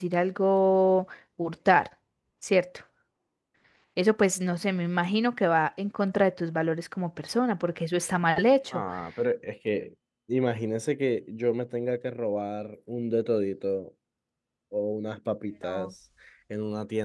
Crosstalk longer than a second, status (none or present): none